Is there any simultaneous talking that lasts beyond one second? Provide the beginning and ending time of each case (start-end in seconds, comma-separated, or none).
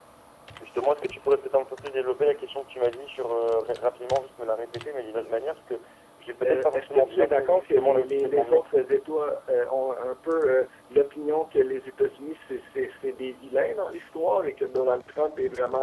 6.5-8.7